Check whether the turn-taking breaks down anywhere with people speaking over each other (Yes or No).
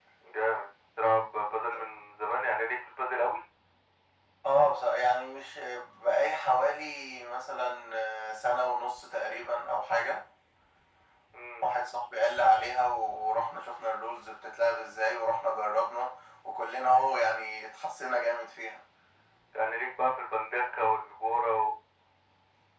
No